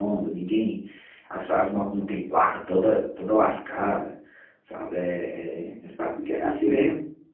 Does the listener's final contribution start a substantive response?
Yes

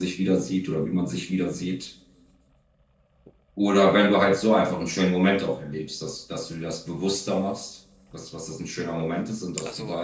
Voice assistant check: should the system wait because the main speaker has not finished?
Yes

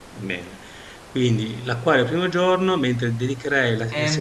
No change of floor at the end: No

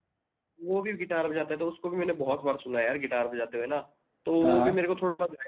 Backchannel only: Yes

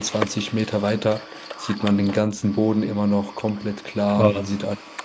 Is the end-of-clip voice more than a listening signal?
No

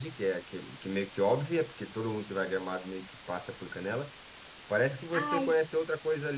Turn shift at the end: No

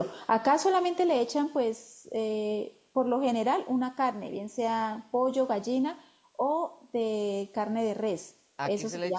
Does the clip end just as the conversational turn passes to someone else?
Yes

